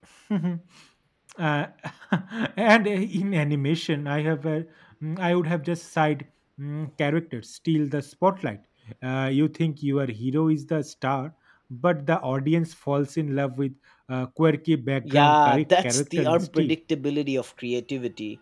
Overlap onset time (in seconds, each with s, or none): 15.1 s